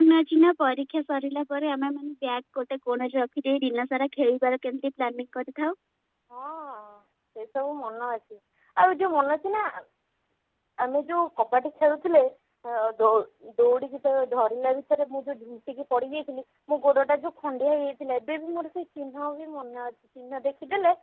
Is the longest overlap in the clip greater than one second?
No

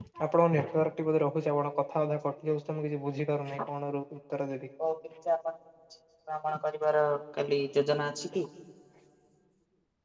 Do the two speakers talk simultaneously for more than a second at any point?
No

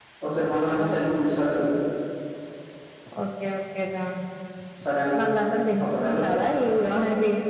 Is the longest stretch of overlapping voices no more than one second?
Yes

